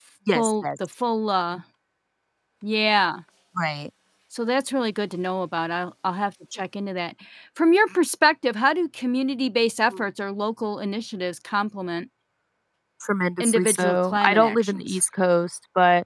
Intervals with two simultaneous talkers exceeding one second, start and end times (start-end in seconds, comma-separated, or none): 13.4-15.0